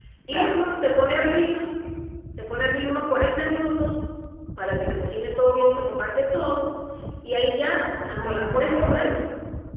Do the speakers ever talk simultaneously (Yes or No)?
Yes